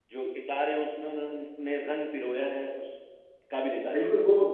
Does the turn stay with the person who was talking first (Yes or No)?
No